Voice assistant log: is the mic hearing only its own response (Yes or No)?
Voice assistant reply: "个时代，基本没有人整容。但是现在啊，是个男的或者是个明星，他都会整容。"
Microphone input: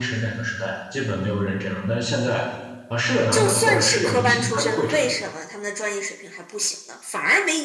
No